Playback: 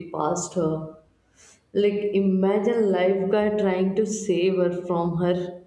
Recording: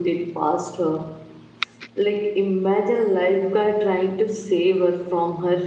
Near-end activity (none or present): none